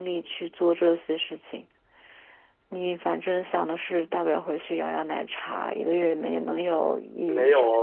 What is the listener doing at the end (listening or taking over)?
taking over